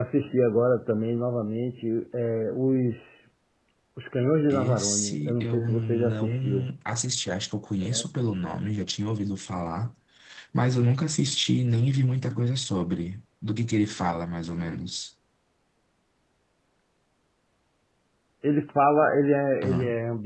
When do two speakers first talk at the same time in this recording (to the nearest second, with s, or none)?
5 s